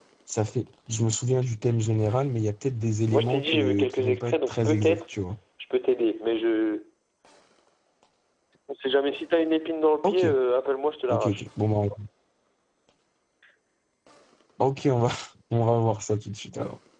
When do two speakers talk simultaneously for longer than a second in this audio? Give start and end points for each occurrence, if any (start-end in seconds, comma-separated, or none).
3.1-5.0